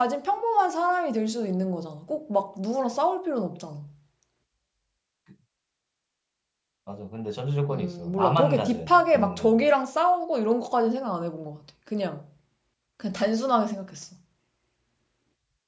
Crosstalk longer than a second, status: present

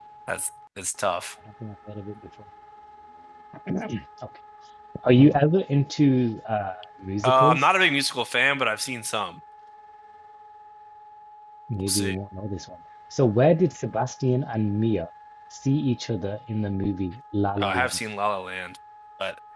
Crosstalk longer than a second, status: none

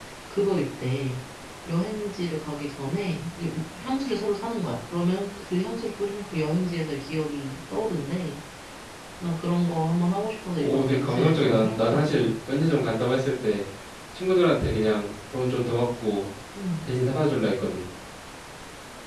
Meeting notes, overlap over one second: present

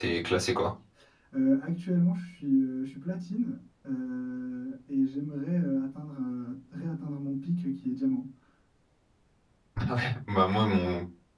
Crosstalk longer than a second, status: none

